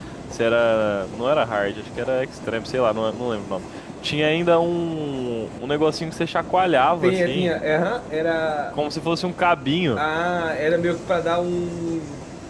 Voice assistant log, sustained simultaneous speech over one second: none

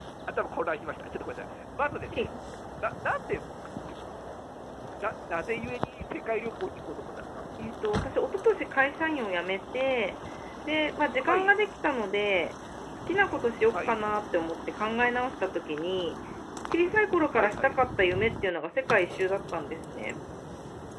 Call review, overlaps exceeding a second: none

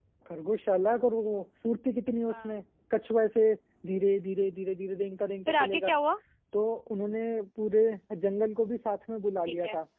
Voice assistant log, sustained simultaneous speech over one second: none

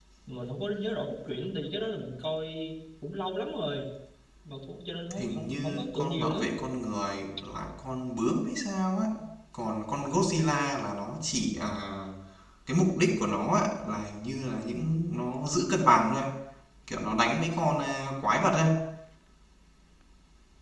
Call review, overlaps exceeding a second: present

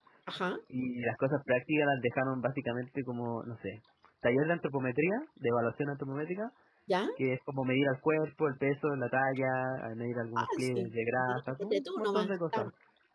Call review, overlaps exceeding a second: present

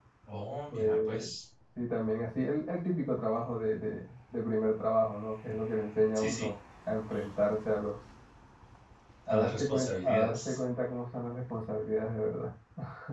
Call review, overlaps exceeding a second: present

